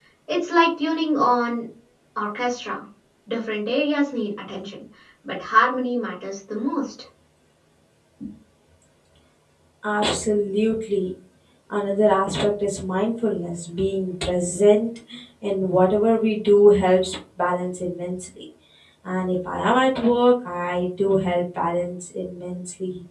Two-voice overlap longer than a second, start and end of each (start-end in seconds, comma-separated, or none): none